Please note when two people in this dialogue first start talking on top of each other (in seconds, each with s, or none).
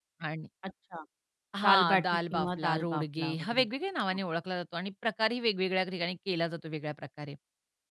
1.6 s